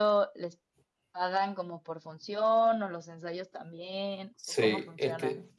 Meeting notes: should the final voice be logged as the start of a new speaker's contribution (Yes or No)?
Yes